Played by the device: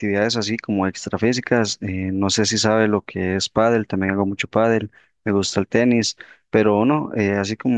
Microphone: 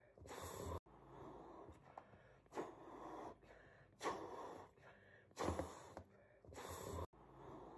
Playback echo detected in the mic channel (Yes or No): No